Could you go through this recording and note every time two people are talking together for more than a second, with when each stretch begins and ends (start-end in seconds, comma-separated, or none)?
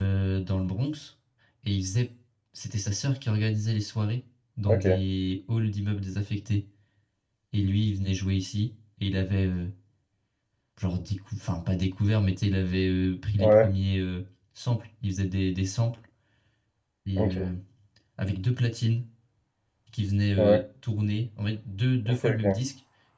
none